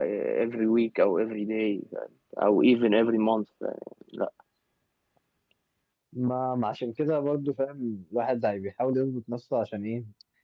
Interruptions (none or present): none